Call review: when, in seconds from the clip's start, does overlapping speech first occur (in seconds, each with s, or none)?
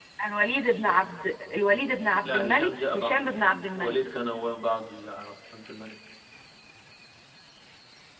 2.2 s